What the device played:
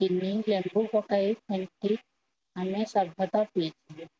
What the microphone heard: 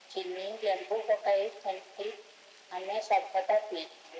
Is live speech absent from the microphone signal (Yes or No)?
Yes